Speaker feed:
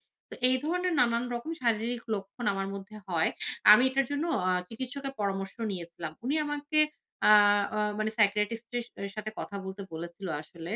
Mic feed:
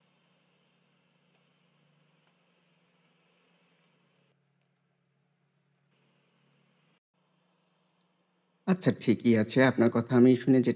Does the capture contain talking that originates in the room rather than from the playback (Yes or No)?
Yes